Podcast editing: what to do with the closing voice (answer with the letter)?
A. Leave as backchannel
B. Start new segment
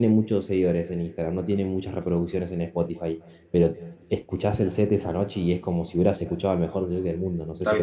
B